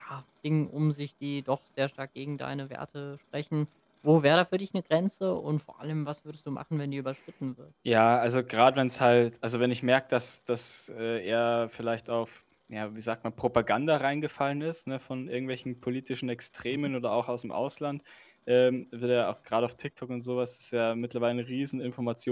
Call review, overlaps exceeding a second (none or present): none